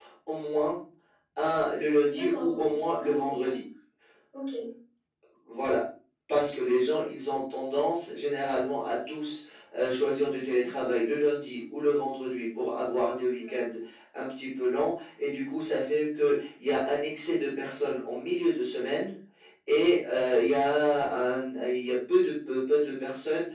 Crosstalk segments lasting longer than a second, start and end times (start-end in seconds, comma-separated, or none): 2.1-3.5